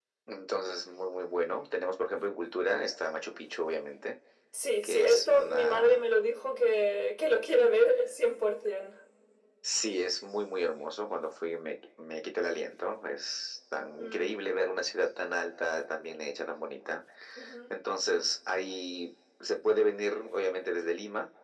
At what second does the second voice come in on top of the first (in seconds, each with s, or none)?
4.8 s